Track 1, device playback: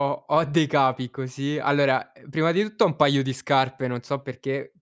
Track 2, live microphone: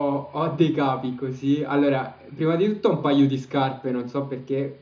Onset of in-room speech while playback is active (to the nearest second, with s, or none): none